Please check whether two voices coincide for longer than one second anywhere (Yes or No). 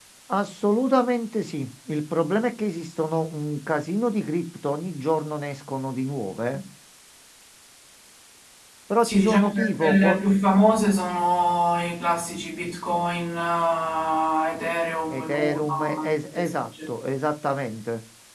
Yes